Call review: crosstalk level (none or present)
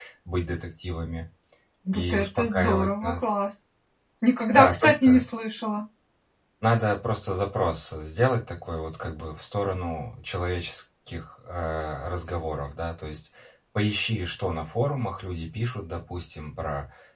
present